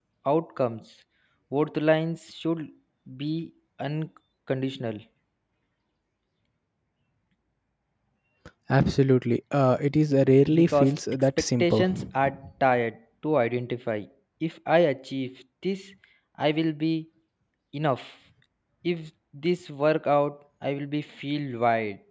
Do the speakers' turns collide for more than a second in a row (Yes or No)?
Yes